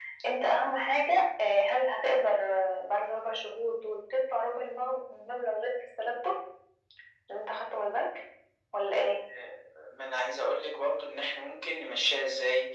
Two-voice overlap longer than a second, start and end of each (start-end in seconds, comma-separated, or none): none